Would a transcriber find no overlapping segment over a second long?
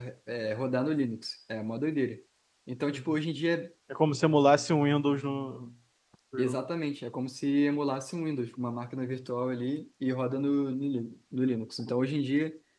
Yes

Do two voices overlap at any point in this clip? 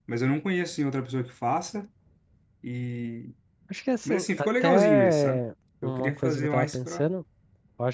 Yes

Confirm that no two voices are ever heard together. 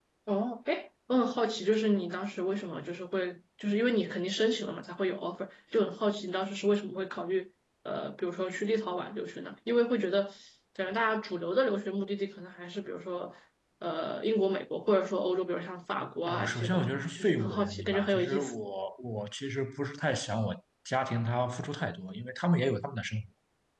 No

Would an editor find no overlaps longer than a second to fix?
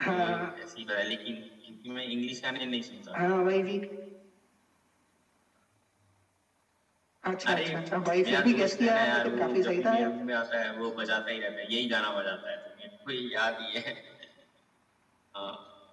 No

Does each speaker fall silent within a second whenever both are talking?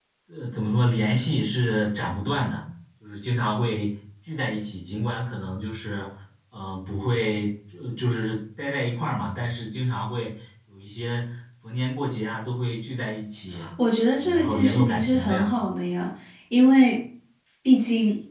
No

